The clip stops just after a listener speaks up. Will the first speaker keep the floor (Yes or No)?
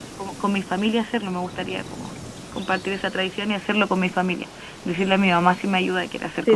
No